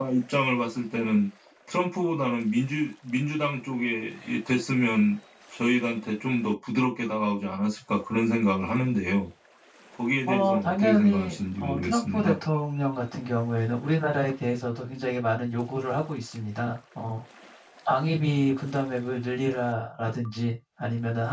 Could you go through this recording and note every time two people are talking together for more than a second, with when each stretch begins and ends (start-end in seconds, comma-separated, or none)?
10.3-12.3